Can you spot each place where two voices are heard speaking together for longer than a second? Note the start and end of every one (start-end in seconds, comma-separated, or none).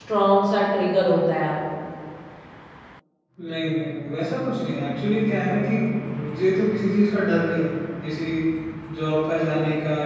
none